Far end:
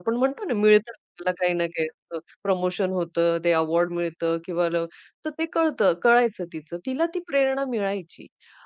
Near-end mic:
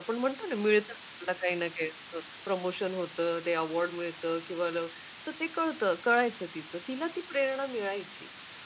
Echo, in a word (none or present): present